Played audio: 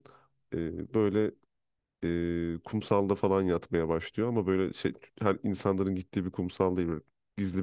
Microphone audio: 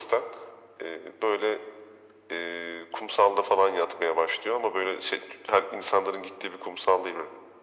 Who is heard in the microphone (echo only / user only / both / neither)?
echo only